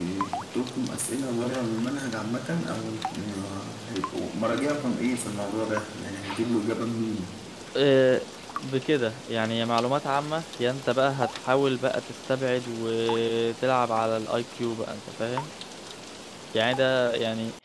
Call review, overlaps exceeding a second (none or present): none